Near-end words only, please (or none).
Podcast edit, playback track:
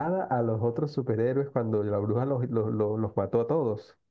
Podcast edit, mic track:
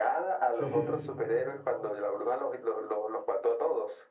sí.